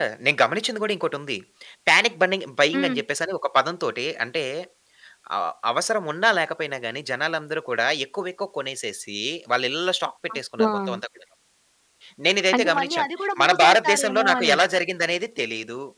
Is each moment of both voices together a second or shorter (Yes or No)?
No